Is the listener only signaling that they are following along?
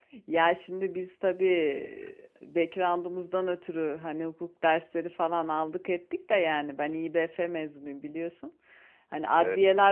Yes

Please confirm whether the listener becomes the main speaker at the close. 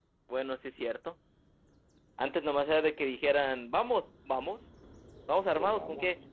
No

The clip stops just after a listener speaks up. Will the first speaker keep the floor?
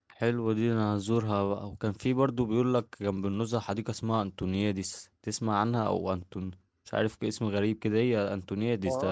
No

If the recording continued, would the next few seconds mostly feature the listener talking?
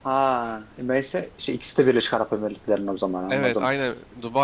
Yes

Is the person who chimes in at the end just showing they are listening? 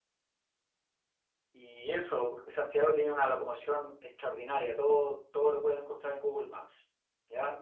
Yes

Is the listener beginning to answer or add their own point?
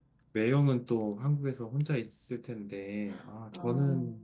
No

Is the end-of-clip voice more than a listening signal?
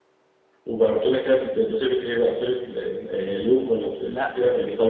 Yes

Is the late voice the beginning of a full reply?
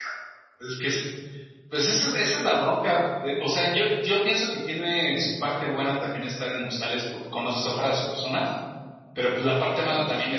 No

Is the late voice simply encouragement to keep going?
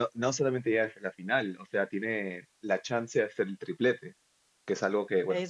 Yes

